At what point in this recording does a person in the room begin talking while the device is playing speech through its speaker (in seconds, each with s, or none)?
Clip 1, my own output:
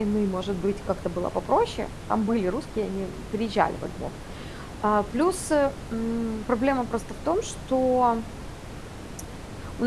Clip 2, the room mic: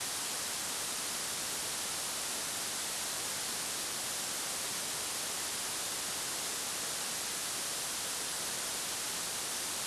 none